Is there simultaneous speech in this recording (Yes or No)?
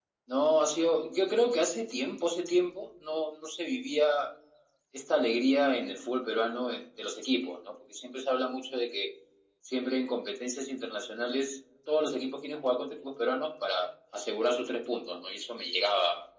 No